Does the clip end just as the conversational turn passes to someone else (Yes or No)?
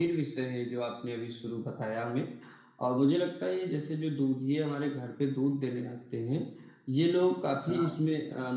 No